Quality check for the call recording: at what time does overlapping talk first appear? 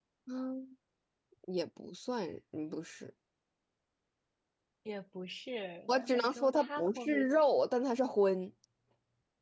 5.9 s

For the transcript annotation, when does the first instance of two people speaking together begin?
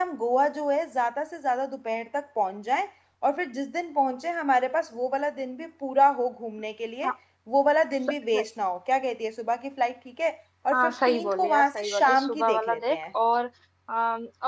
10.7 s

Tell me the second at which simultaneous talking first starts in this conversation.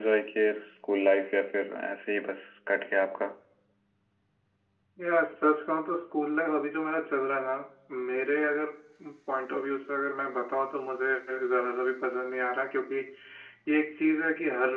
none

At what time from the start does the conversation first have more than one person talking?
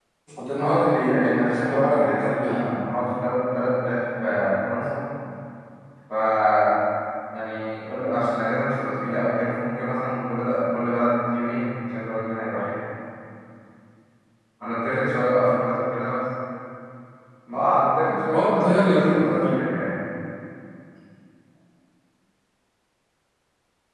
0.6 s

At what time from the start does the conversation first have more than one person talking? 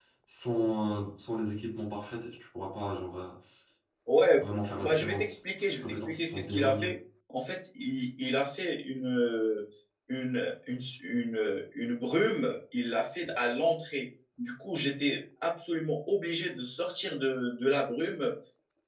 4.8 s

